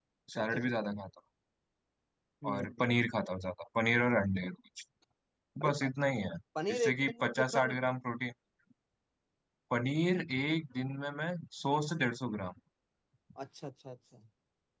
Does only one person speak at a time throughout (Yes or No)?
No